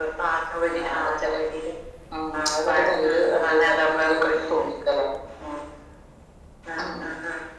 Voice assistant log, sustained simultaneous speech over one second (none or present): present